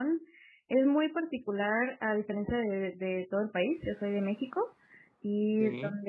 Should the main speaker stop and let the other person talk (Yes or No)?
No